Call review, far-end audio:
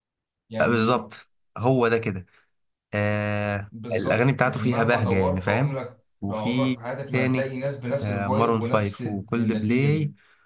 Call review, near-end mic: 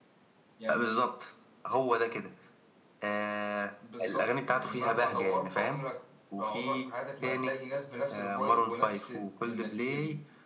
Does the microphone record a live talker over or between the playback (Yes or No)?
No